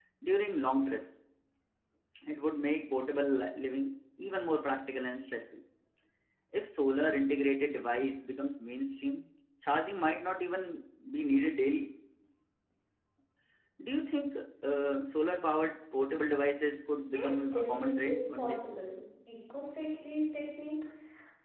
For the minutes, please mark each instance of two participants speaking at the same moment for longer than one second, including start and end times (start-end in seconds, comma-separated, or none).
17.0-18.7